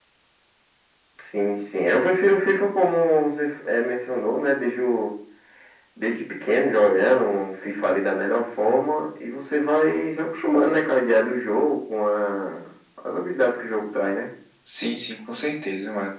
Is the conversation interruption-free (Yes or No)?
Yes